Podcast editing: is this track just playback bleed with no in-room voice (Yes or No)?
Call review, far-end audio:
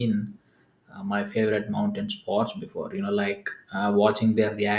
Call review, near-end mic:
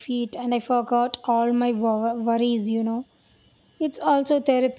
No